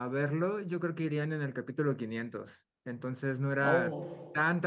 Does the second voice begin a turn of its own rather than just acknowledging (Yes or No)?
No